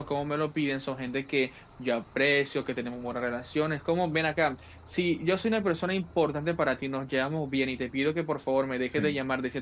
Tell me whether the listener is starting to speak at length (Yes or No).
No